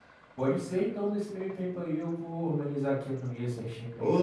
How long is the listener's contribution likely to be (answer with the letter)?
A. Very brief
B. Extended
B